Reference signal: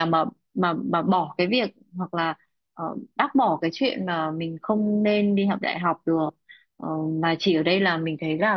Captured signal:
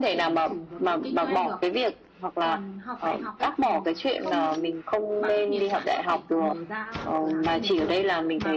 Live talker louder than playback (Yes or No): No